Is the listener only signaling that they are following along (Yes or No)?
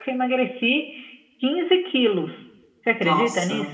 No